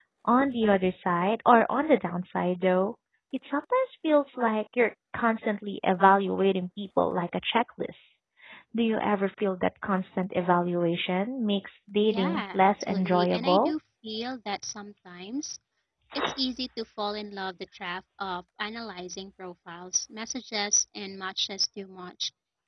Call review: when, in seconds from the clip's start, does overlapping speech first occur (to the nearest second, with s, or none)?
12 s